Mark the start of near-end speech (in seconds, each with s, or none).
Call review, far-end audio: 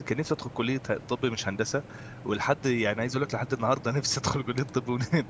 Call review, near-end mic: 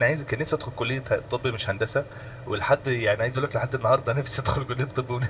none